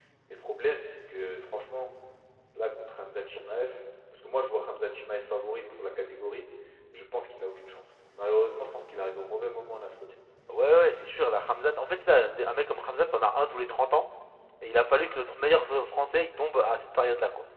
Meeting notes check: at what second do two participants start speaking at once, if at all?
none

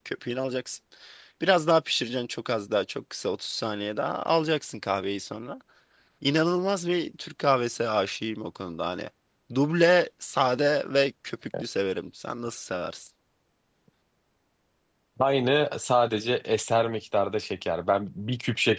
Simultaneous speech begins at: none

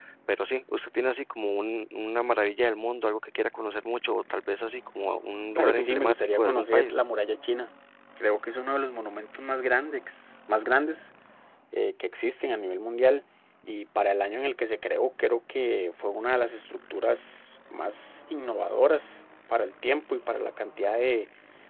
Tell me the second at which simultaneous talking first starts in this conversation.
6 s

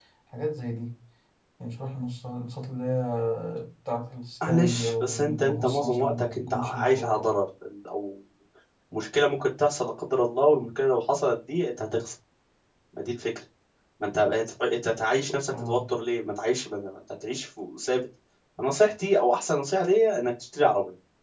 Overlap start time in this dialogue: 4 s

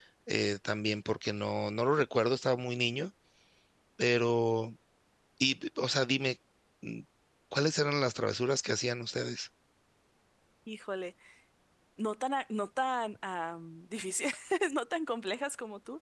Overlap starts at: none

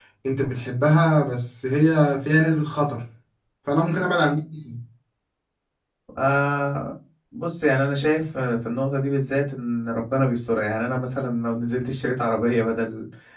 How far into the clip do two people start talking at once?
none

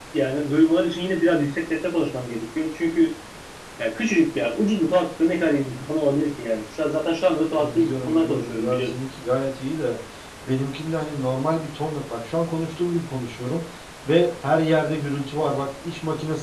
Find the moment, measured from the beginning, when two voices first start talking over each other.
8 s

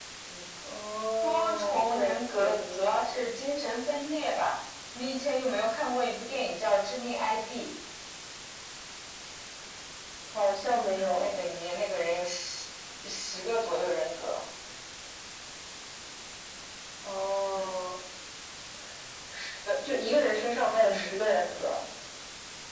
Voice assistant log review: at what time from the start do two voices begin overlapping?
1 s

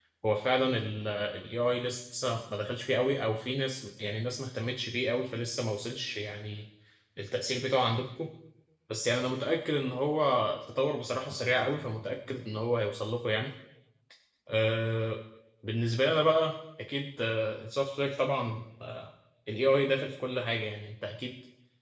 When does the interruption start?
none

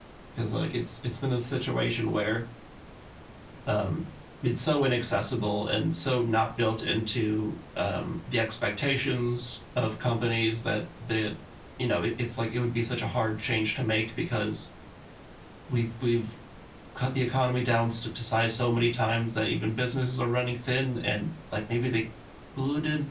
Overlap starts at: none

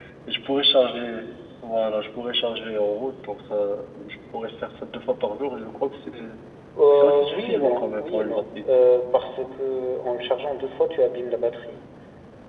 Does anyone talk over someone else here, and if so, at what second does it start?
7 s

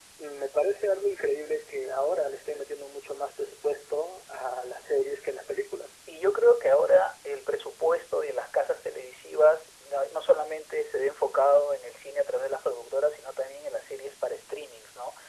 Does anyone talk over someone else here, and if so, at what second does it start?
none

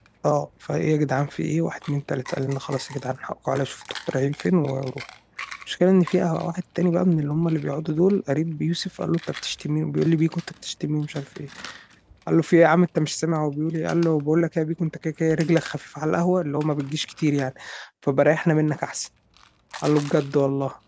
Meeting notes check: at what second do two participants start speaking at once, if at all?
none

